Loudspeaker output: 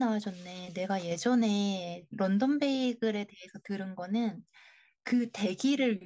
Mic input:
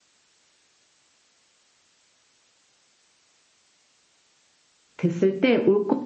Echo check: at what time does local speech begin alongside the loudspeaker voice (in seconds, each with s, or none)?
5.0 s